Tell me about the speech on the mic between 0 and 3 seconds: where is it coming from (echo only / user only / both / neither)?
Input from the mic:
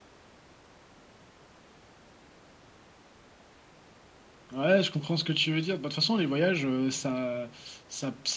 neither